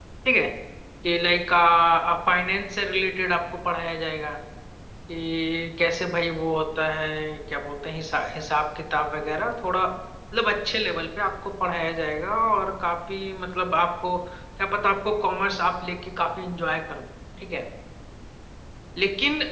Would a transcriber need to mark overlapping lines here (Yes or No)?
No